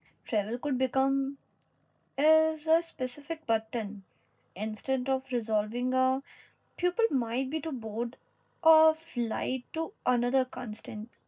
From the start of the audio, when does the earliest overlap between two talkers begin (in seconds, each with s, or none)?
none